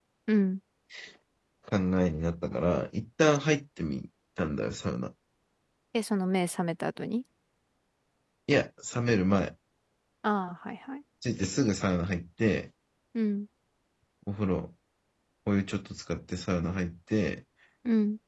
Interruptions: none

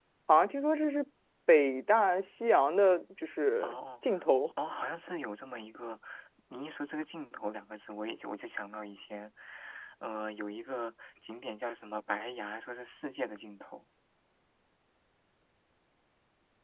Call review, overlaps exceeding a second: none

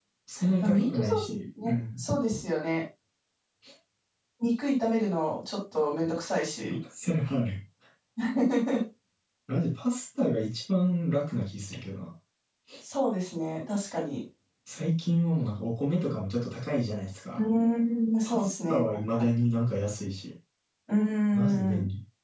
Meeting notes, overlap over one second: present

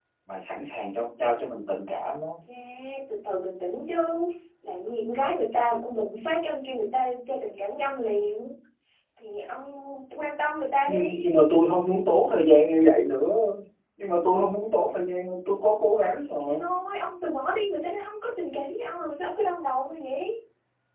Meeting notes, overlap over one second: none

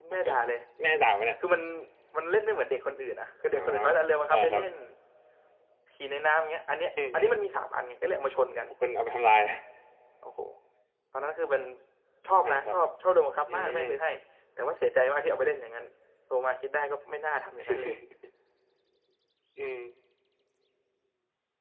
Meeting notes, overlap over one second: none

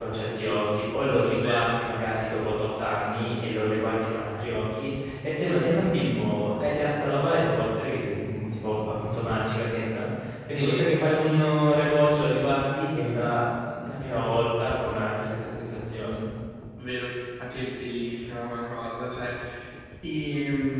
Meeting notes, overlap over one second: none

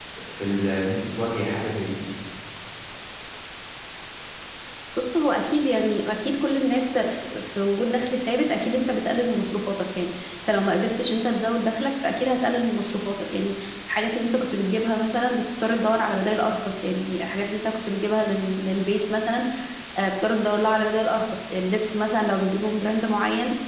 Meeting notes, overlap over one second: none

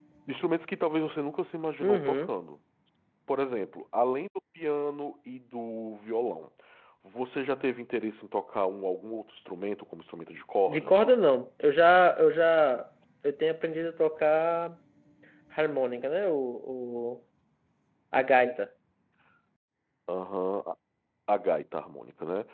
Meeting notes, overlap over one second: none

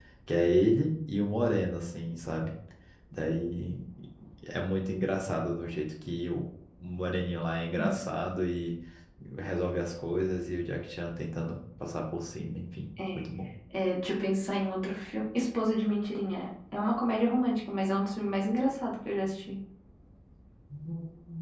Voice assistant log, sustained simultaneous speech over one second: none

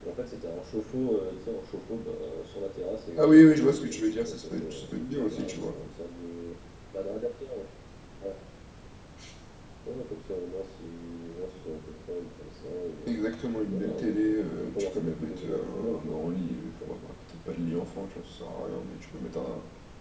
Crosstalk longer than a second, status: present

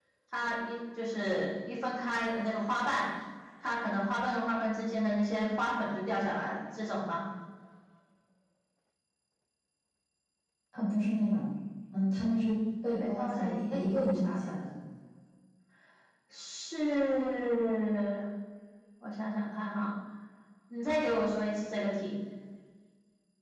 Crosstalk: present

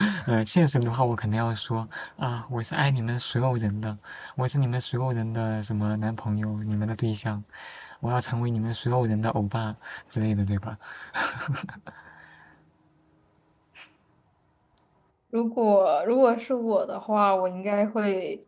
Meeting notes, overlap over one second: none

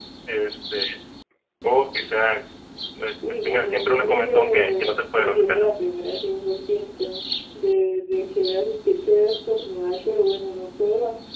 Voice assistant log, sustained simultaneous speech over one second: present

